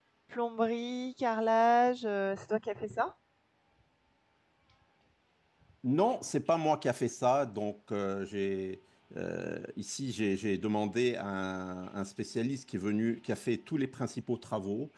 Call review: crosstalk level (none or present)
none